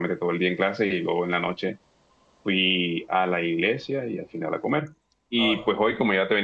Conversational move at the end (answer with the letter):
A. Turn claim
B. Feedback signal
B